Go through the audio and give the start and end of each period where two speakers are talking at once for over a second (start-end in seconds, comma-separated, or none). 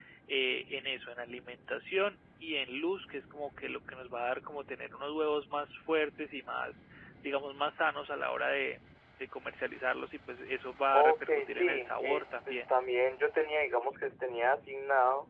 10.9-12.6